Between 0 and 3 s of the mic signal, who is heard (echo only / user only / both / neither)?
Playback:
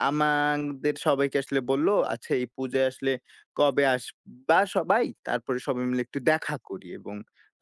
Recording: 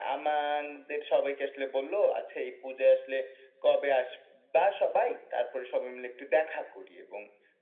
echo only